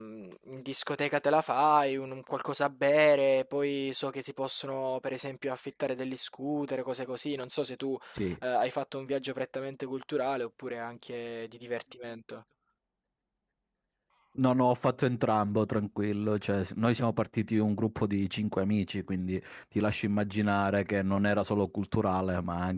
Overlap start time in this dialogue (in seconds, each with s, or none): none